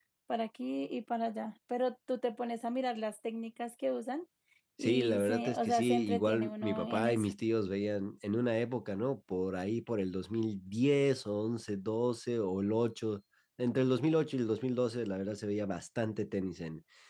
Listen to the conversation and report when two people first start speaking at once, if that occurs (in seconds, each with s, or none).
4.8 s